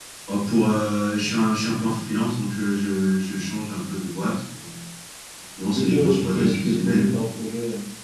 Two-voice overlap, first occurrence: 5.8 s

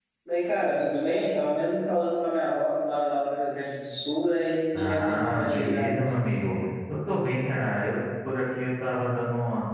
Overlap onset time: 4.7 s

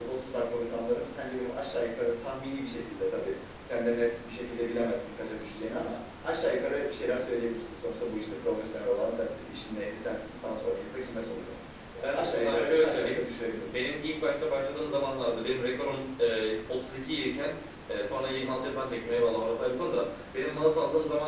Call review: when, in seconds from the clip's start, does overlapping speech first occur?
12.0 s

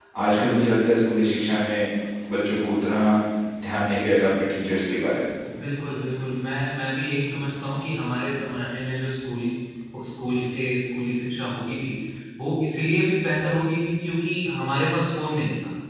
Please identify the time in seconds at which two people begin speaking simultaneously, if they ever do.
none

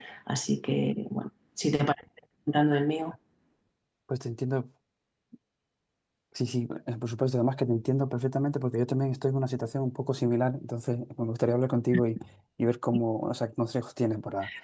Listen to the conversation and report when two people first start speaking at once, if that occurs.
none

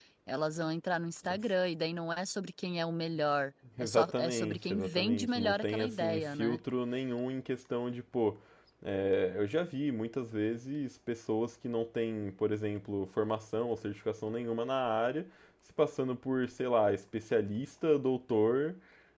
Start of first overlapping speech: 3.8 s

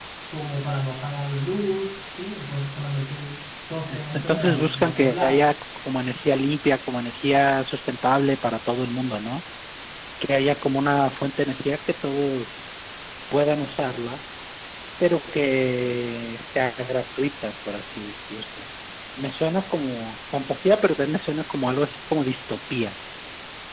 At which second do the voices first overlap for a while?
3.9 s

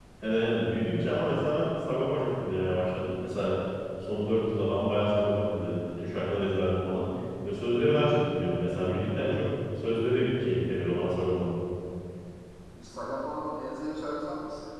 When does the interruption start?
none

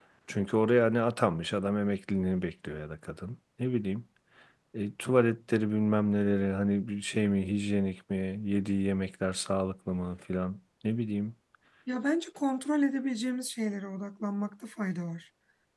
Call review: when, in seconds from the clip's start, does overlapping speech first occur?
none

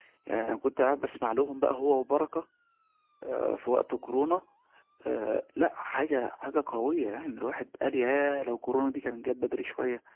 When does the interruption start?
none

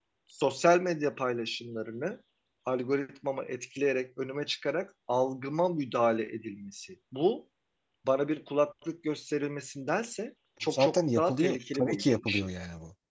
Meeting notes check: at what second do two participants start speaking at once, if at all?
10.7 s

